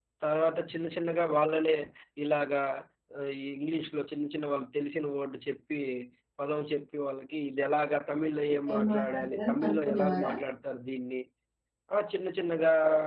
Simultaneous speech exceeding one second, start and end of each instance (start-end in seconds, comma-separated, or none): 8.7-10.3